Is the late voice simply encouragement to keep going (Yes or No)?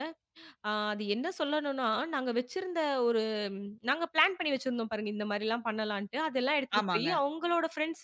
Yes